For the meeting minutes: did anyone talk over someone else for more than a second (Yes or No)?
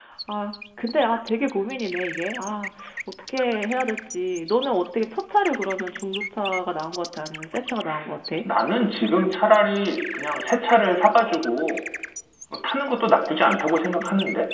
No